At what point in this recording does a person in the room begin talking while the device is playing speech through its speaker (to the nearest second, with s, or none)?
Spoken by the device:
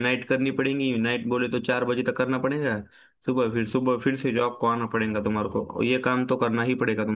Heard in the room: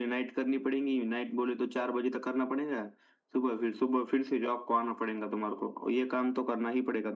none